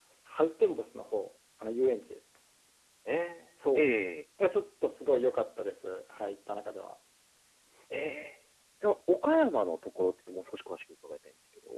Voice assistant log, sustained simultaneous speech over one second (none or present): none